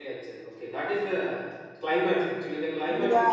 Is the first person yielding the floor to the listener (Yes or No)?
Yes